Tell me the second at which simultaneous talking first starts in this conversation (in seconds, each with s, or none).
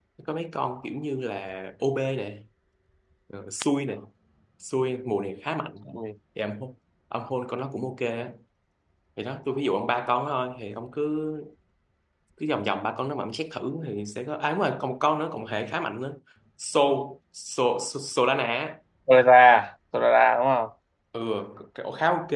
none